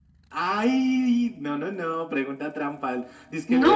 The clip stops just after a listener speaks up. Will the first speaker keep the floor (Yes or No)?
Yes